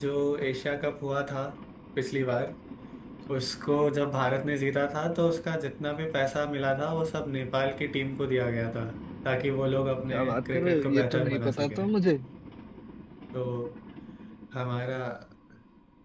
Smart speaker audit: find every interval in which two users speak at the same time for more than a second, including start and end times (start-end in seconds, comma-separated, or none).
10.1-11.8